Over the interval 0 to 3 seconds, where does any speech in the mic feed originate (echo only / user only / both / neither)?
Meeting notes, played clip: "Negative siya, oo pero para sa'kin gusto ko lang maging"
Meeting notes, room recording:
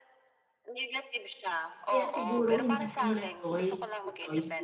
both